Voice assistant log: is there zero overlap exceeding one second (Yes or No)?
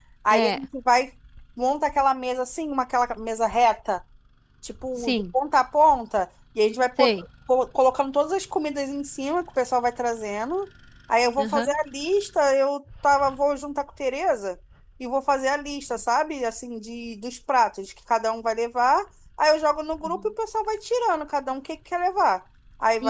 Yes